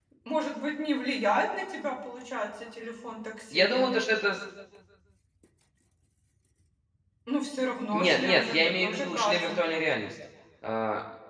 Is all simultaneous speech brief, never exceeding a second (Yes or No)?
No